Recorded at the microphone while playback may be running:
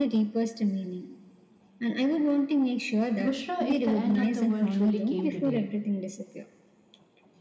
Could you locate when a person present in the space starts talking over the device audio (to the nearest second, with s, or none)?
3 s